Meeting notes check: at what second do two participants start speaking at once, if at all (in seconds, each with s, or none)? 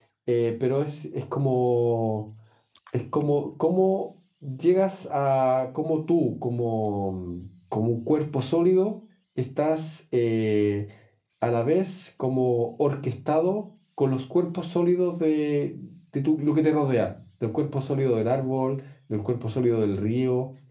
none